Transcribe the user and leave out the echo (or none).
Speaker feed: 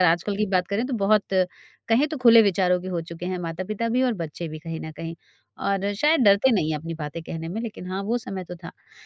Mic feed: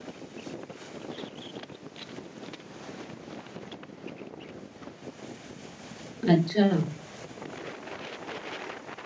अच्छा।